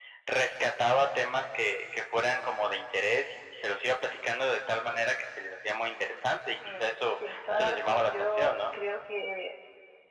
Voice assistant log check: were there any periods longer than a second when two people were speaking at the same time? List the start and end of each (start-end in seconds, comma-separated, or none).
6.6-8.7